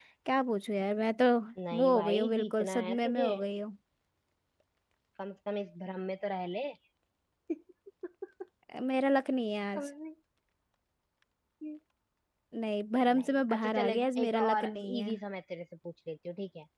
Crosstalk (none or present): present